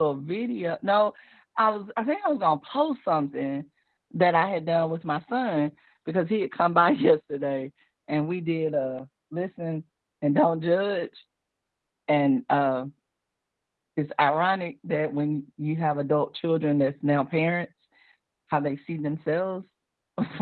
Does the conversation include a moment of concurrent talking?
No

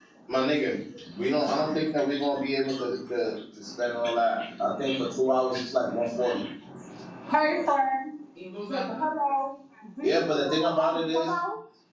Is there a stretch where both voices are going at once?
Yes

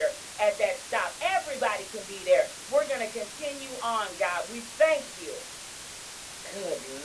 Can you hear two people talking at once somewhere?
No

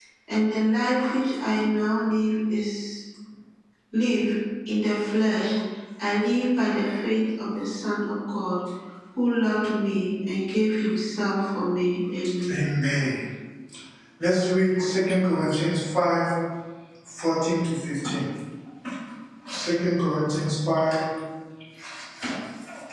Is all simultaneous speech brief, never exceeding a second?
Yes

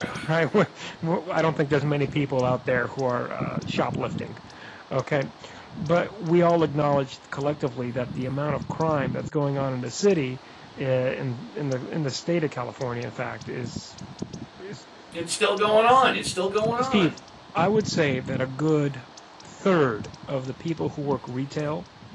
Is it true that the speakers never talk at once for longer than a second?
Yes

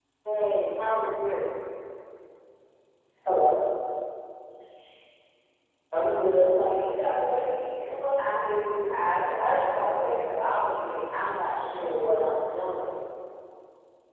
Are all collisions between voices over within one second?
No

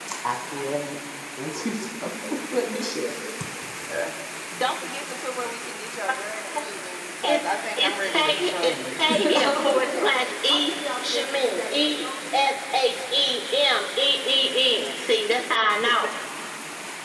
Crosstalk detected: Yes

